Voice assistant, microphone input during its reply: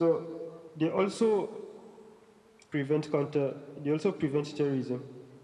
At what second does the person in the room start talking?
none

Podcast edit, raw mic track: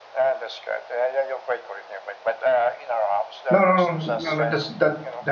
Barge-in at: 3.5 s

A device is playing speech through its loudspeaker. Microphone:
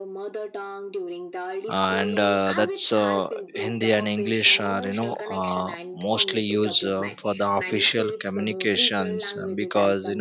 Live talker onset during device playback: 1.7 s

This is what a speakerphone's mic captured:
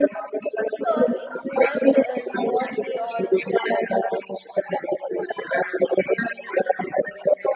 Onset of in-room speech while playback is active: 0.7 s

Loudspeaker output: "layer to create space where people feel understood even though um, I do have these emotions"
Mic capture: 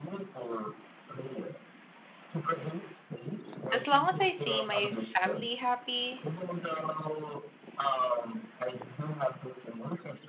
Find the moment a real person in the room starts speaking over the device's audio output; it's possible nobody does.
3.7 s

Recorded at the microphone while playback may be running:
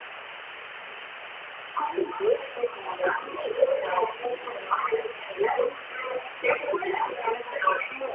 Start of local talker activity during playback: none

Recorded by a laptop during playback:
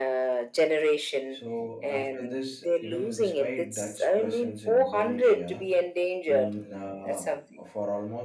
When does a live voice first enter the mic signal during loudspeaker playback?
1.4 s

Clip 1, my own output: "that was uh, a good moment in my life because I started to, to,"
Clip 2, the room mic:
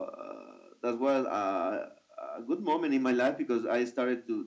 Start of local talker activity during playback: none

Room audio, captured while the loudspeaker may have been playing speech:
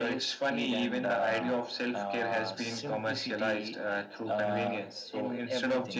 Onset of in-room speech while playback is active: none

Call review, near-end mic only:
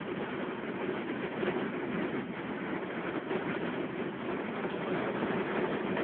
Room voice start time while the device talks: none

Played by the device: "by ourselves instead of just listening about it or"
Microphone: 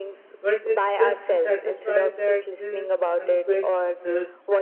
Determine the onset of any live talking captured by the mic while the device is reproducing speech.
0.4 s

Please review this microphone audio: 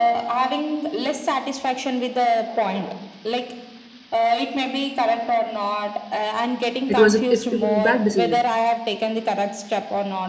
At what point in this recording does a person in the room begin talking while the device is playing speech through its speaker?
7.0 s

